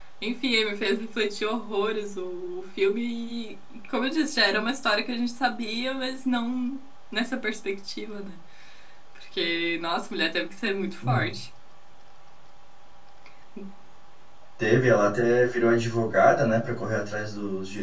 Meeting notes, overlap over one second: none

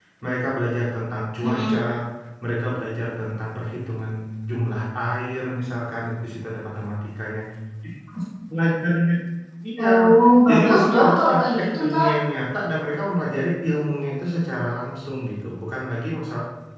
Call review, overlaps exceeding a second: present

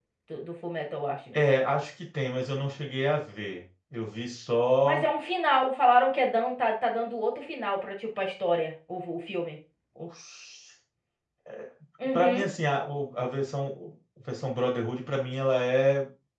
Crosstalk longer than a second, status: none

